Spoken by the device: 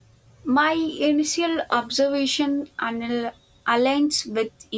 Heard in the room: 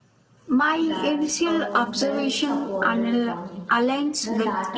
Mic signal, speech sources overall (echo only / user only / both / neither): both